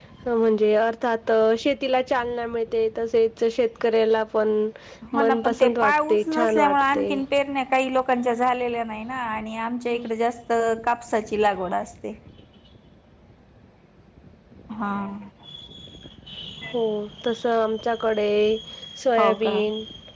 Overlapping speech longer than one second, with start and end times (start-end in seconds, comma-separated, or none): 5.1-7.1